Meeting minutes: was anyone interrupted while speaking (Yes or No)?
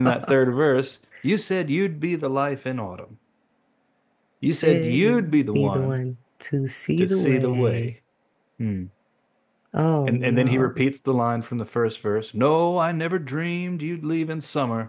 Yes